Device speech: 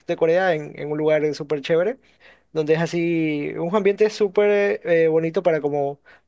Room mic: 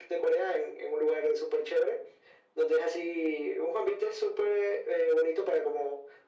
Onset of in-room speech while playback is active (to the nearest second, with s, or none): none